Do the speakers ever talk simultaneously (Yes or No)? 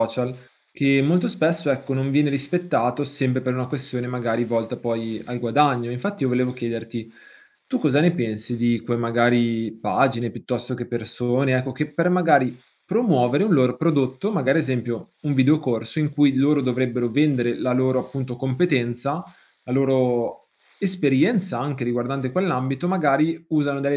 No